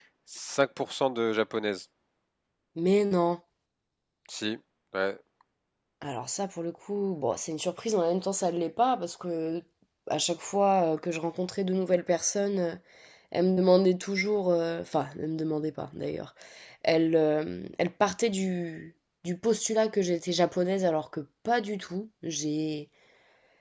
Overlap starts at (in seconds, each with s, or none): none